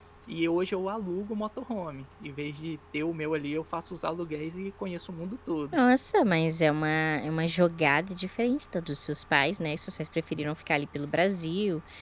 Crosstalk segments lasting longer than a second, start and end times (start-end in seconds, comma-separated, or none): none